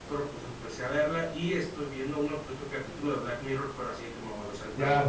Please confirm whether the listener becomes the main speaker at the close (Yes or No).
Yes